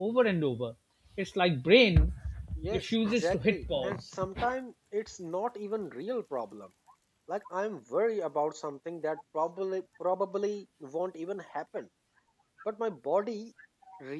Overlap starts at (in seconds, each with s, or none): 2.7 s